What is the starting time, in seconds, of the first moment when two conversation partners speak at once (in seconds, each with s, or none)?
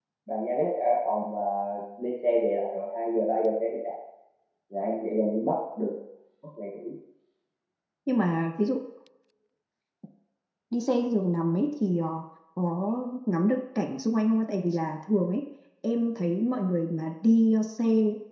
none